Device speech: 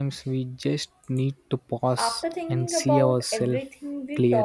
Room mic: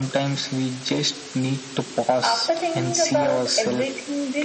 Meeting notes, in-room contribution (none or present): none